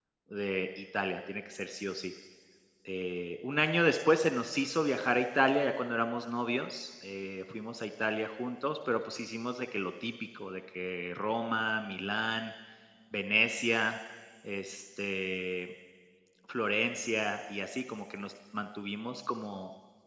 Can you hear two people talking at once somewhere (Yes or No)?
No